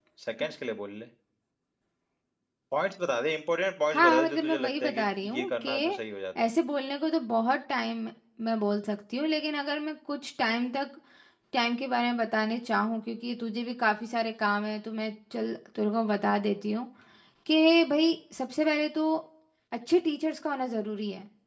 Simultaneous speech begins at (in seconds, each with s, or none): 3.9 s